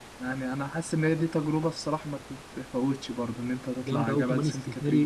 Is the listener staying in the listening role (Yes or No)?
No